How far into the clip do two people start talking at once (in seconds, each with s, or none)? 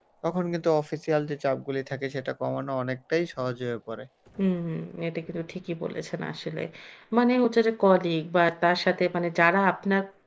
none